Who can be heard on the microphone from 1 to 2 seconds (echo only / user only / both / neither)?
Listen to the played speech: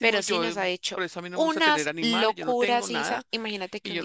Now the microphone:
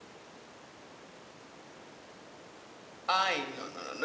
neither